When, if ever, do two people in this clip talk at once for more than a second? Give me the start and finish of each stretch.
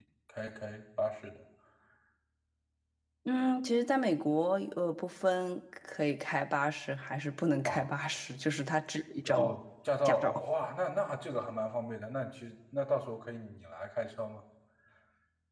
none

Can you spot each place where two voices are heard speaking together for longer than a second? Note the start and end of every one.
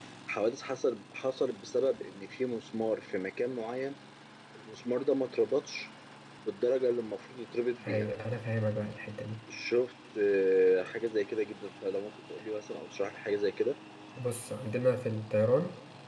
none

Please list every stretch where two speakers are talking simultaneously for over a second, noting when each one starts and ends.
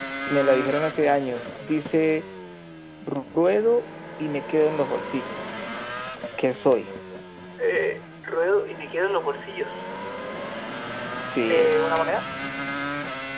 none

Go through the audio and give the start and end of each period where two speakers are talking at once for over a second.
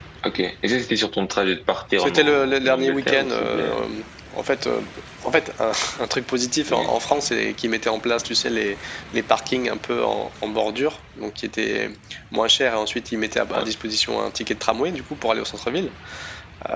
2.0-3.8

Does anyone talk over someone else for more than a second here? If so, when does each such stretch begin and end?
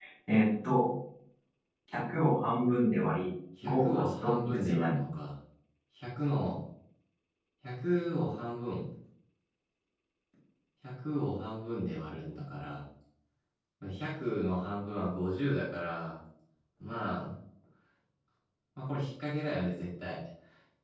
3.6-5.0

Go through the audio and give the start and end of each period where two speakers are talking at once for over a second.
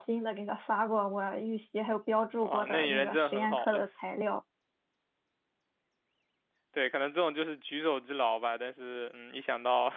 2.4-3.9

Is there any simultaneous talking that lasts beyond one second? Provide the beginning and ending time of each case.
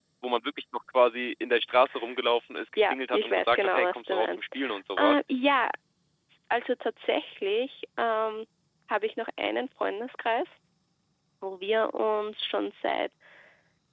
2.8-4.5

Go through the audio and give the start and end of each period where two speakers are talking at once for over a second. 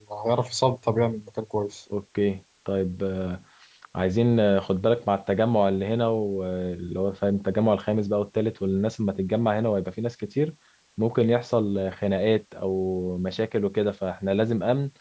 none

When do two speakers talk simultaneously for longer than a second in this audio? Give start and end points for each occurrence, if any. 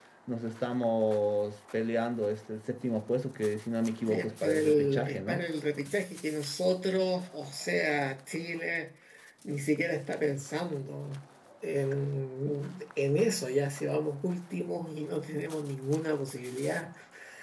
4.0-5.4

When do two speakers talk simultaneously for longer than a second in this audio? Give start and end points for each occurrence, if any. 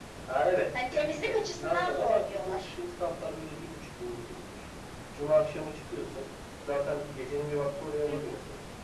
0.7-2.6

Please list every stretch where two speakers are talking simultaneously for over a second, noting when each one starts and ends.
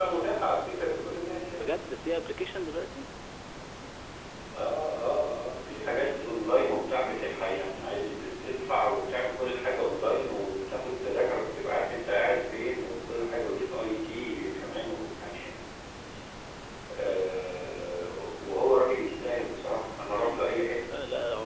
none

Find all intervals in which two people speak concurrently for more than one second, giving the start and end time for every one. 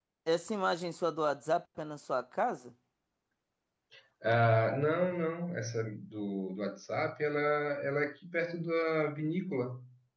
none

